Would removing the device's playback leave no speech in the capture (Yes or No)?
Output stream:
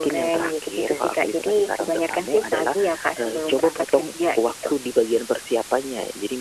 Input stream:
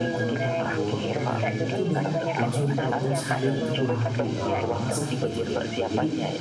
No